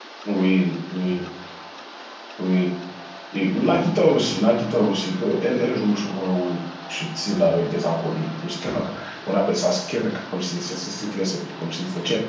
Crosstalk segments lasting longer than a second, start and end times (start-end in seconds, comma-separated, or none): none